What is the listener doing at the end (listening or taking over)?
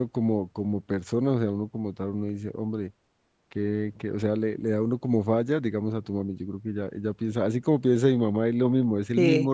listening